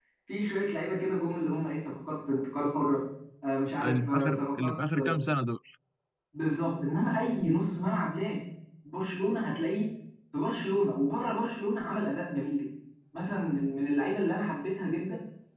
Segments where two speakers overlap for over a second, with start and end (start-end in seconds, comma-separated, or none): 3.8-5.1